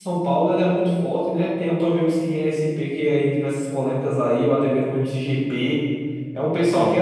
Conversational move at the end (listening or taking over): listening